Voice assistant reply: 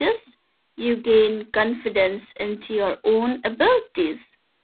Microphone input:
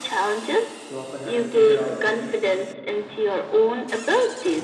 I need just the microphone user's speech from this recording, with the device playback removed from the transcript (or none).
You often have to figure out